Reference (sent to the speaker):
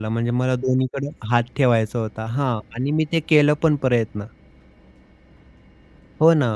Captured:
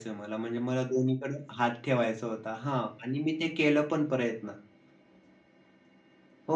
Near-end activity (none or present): none